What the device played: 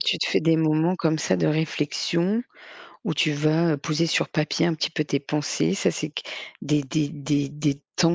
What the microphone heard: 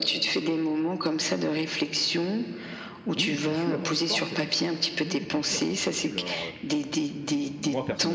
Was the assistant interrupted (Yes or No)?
Yes